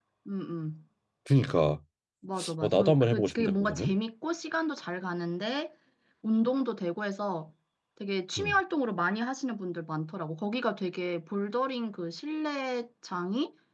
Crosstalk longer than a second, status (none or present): present